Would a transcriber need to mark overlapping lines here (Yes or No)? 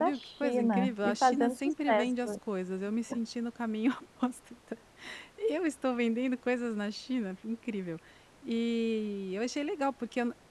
Yes